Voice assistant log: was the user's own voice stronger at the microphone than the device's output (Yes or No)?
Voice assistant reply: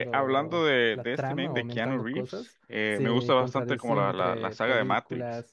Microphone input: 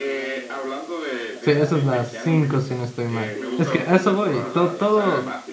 Yes